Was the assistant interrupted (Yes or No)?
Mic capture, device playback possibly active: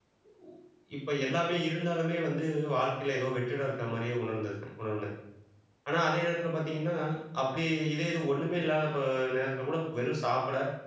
Yes